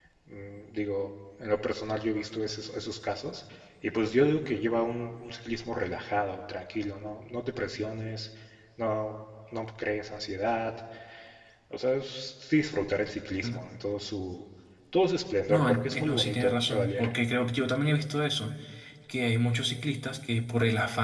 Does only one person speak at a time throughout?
No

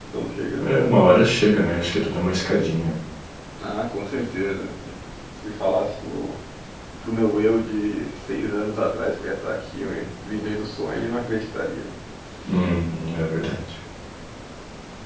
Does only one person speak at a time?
Yes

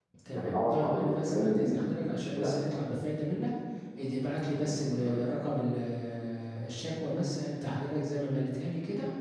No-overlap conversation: No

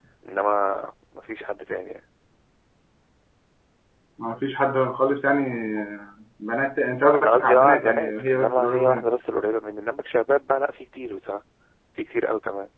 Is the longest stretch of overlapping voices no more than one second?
No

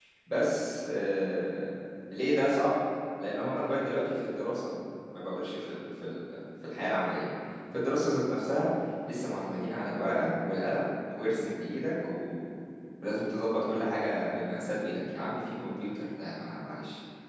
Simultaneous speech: No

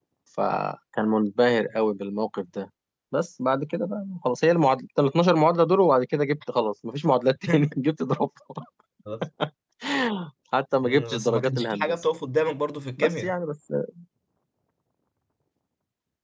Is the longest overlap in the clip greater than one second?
Yes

